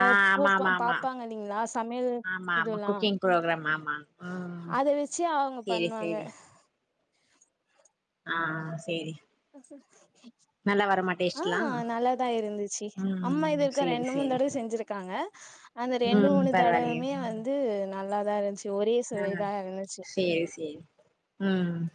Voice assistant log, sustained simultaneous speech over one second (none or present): present